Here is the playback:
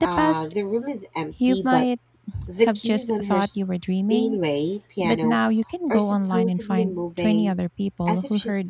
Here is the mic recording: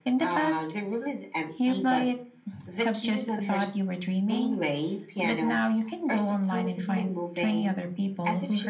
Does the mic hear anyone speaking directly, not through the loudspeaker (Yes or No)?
No